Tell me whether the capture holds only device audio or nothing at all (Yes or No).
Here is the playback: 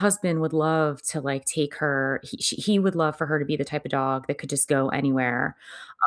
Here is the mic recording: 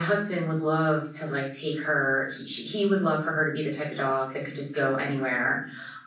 Yes